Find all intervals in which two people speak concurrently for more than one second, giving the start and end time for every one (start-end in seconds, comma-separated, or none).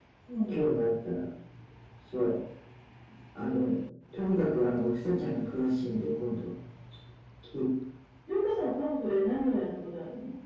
none